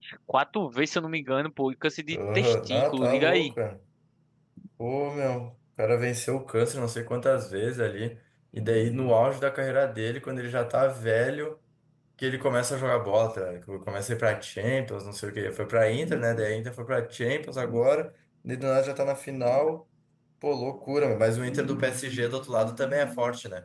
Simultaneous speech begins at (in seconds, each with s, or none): 2.1 s